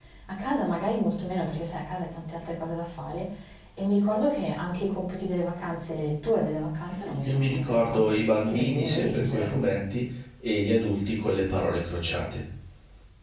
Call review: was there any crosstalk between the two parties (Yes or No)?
Yes